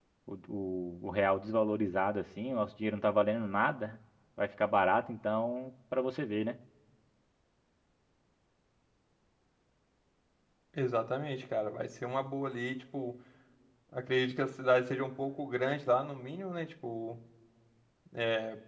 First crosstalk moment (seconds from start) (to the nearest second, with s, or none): none